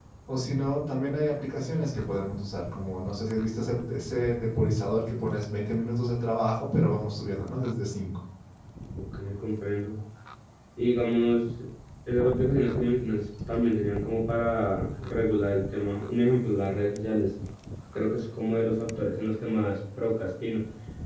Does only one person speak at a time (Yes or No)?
Yes